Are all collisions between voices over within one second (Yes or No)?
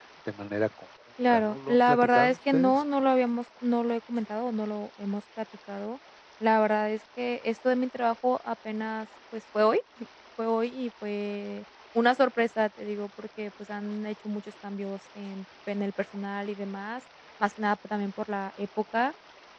No